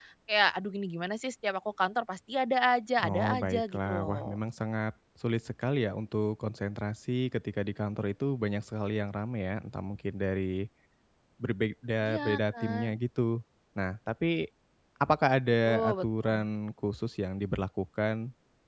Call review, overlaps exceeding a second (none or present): present